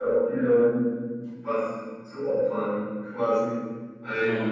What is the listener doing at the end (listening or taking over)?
listening